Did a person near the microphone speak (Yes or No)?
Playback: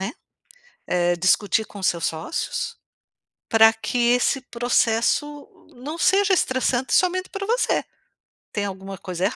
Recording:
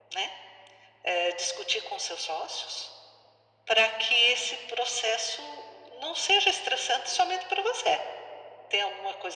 No